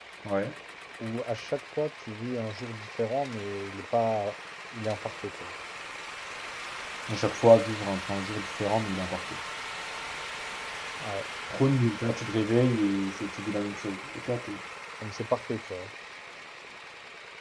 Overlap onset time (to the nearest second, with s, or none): none